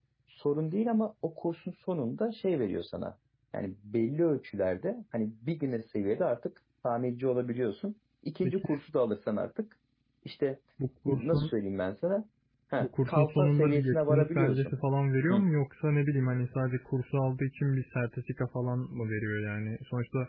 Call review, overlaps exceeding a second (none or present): present